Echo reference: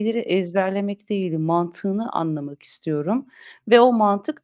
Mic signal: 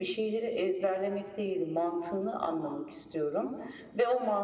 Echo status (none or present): present